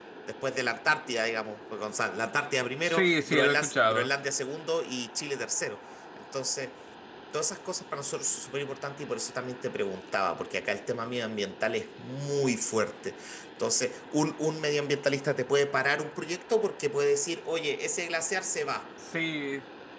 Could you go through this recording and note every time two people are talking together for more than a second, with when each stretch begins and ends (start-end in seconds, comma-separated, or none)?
2.8-4.1